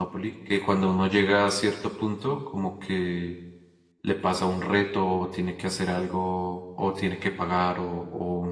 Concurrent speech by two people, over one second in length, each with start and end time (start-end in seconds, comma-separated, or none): none